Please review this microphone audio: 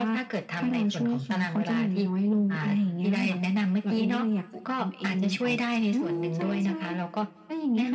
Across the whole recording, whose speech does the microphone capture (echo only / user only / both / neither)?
echo only